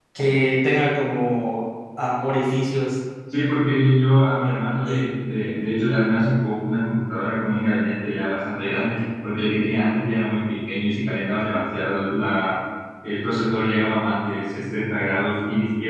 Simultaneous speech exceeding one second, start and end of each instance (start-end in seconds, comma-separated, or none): none